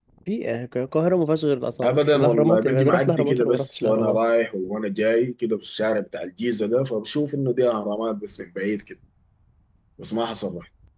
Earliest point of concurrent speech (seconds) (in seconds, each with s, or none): 1.8 s